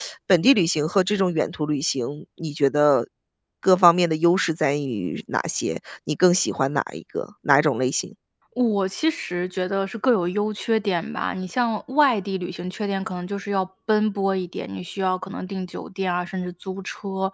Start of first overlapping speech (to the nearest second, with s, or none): none